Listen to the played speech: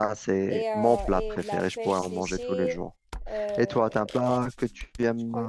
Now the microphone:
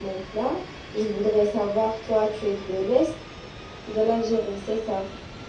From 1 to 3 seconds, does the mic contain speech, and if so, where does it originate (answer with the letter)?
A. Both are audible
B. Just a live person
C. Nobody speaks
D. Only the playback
B